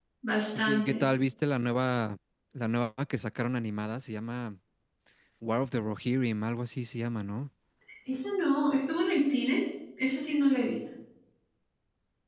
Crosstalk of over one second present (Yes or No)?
No